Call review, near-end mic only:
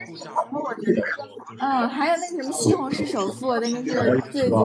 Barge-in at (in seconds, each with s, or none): 1.6 s